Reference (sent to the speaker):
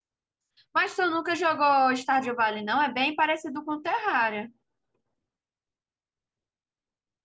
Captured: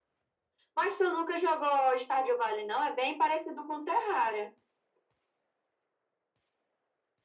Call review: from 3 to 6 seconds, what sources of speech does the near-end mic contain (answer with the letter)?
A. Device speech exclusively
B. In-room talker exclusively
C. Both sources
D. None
A